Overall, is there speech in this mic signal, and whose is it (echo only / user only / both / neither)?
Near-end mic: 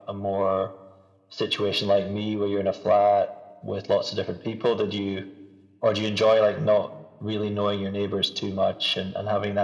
echo only